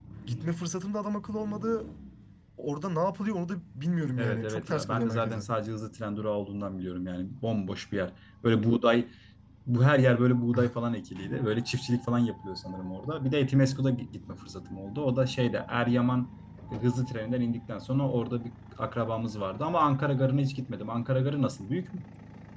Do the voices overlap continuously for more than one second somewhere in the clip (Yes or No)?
Yes